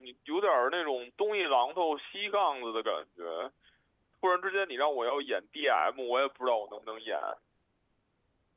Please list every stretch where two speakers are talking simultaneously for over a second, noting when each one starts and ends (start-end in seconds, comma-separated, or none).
none